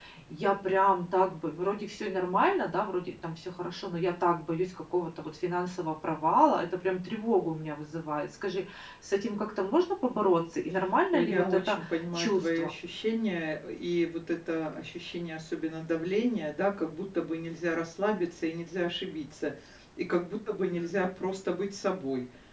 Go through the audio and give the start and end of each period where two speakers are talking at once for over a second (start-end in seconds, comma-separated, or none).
11.1-12.7